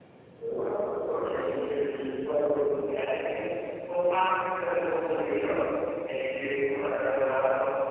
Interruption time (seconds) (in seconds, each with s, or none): none